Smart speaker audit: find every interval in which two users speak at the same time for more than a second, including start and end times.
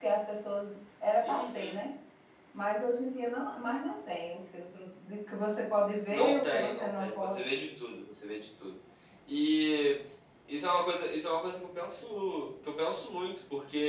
6.1-7.5

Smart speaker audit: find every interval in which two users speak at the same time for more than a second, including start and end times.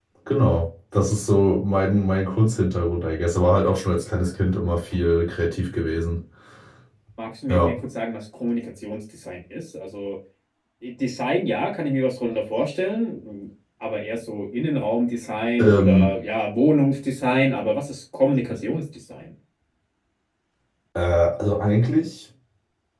none

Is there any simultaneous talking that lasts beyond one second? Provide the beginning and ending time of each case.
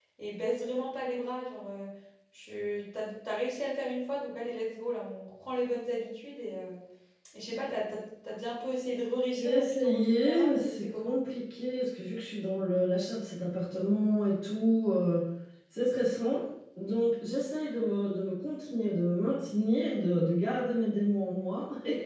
9.3-11.2

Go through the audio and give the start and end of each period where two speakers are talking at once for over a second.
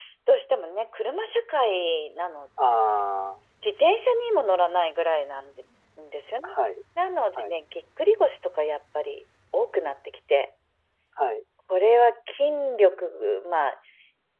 none

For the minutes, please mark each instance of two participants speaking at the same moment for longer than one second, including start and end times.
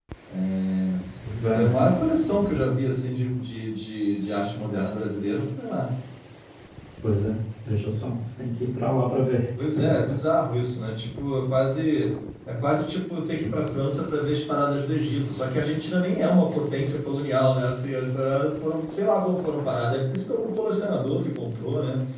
none

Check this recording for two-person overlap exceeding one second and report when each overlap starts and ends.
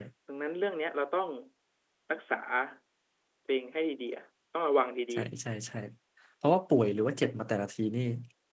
none

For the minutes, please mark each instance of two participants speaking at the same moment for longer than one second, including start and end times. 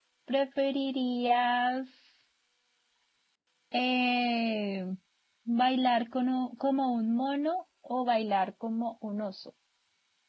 none

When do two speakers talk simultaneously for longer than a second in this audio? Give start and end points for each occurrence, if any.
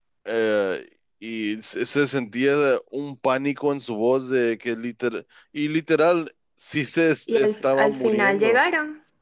7.3-8.6

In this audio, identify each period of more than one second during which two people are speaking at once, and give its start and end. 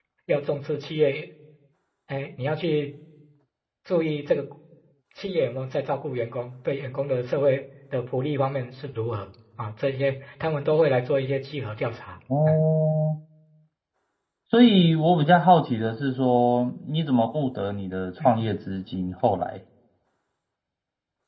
none

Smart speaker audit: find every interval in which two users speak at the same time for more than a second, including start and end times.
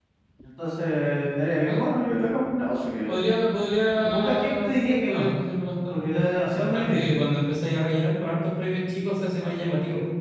4.0-5.3

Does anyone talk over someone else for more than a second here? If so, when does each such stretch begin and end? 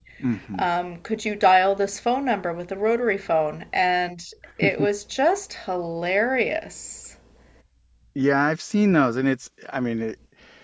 none

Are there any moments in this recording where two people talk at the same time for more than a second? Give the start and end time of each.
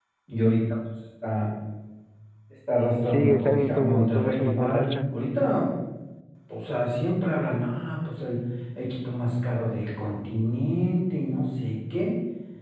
3.0-4.9

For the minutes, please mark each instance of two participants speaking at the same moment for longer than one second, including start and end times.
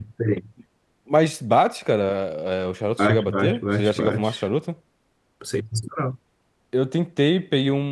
3.0-4.3

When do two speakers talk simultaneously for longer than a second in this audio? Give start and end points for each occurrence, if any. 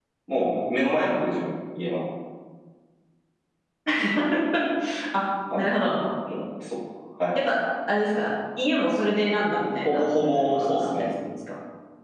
9.8-11.1

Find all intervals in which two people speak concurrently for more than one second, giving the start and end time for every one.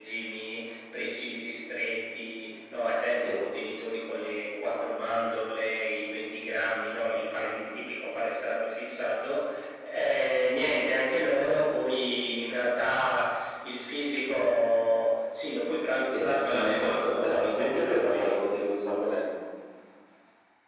16.1-18.6

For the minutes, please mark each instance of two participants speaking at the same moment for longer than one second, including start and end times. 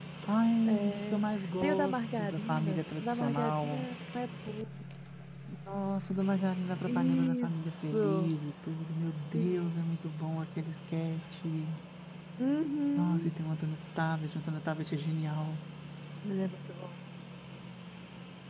1.6-3.9, 6.8-8.3

